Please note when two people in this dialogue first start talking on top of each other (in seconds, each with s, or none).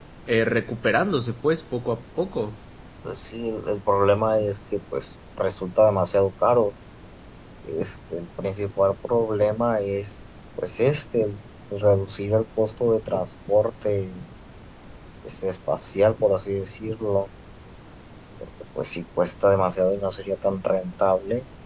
none